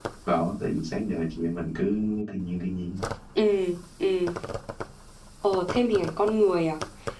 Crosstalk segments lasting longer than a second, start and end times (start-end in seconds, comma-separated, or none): none